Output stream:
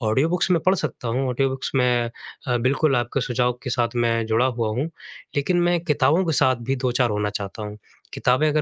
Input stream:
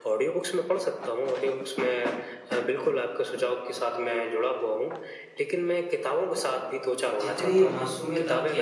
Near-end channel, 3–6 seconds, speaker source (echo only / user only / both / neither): echo only